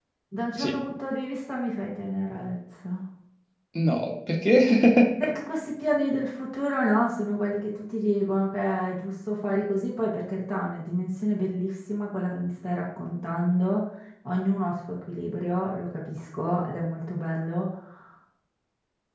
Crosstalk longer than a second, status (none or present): none